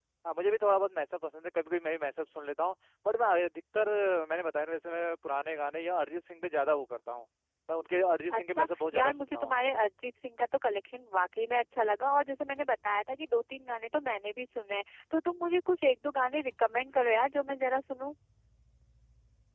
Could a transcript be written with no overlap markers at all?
No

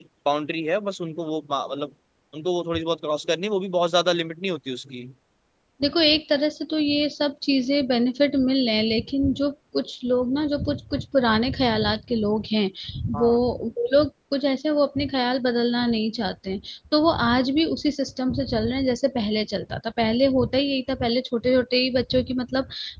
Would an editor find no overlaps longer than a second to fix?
Yes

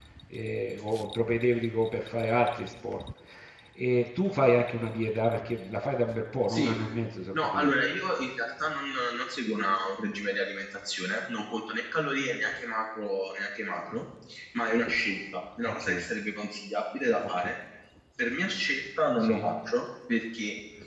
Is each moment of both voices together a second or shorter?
Yes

